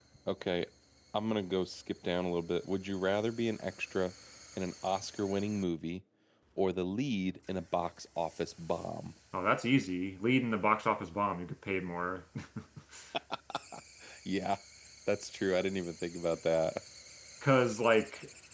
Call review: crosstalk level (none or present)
none